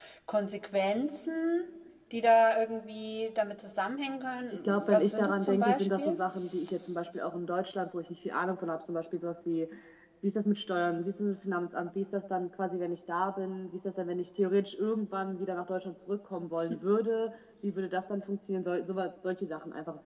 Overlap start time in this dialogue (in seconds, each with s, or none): 4.6 s